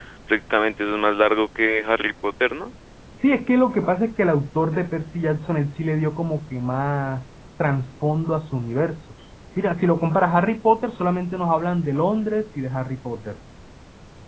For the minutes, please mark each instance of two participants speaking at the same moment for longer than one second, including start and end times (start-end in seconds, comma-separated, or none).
none